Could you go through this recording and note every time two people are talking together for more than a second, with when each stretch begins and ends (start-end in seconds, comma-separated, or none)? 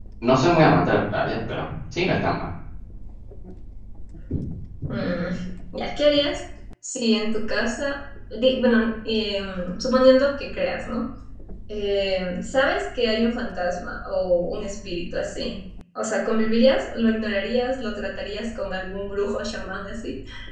none